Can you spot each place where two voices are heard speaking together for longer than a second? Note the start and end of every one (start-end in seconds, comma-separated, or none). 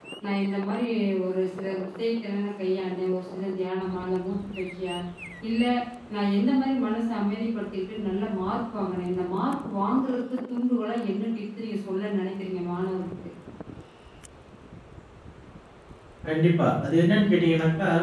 none